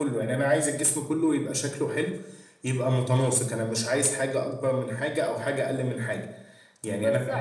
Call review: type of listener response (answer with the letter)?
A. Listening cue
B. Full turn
B